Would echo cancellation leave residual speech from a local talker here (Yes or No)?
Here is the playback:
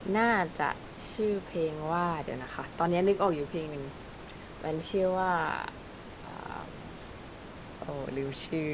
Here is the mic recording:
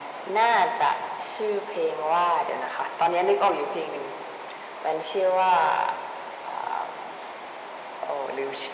No